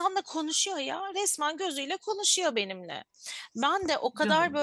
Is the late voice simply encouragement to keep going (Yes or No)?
Yes